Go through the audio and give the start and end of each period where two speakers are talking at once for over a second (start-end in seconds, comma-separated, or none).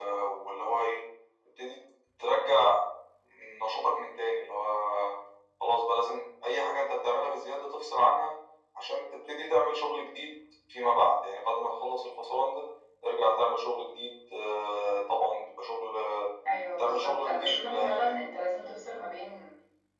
16.8-18.2